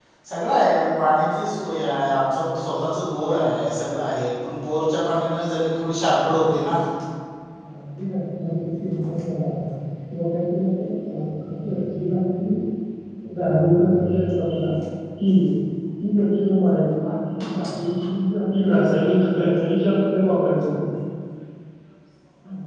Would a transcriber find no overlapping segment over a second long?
Yes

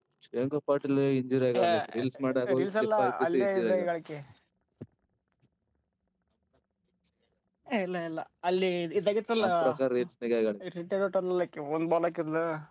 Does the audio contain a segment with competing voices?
Yes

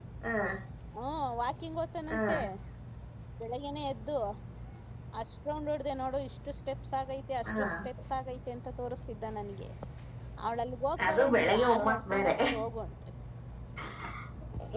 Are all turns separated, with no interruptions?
No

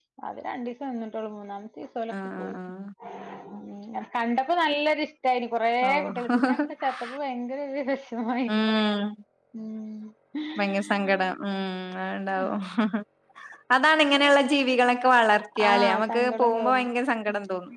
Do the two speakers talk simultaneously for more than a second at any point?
Yes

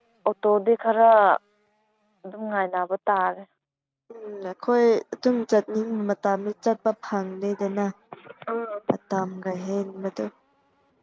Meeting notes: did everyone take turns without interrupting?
Yes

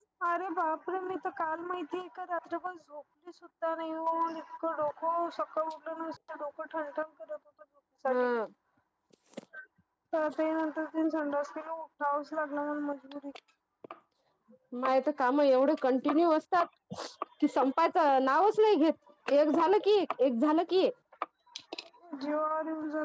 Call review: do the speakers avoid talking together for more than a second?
Yes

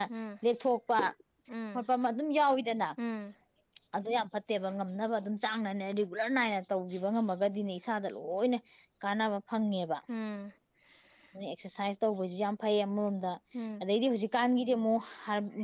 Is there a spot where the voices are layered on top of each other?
No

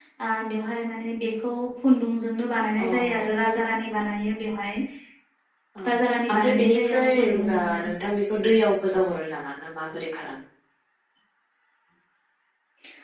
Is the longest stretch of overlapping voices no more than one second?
No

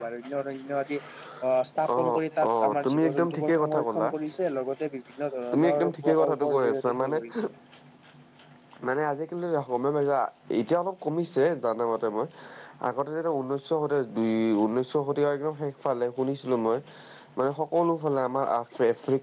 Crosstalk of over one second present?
Yes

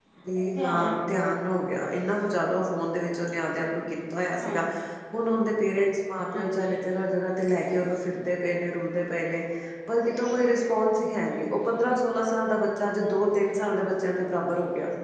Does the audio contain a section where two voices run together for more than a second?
No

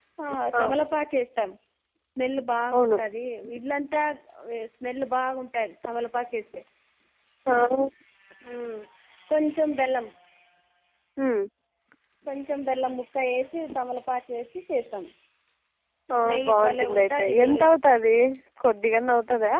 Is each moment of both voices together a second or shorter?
No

